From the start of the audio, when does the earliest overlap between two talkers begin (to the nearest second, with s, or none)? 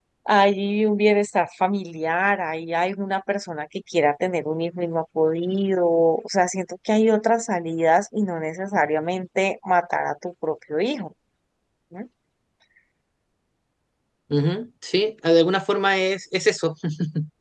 none